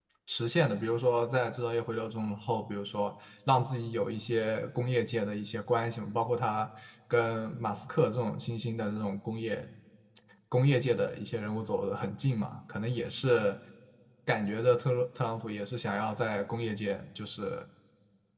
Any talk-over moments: No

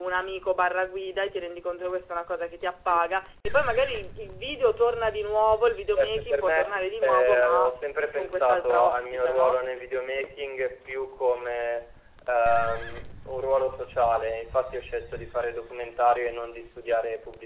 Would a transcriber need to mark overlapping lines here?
Yes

